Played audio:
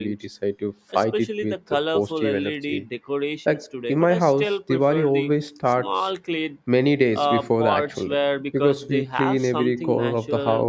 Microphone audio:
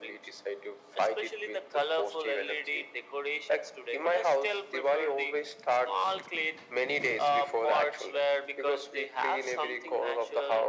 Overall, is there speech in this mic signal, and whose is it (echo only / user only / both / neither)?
echo only